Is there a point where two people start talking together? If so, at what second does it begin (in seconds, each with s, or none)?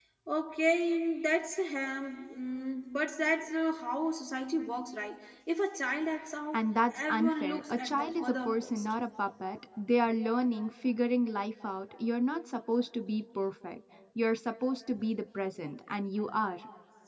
6.5 s